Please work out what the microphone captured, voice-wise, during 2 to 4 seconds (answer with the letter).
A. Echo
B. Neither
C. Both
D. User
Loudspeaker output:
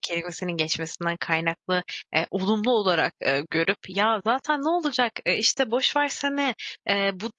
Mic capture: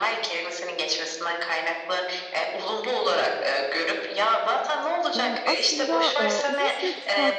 A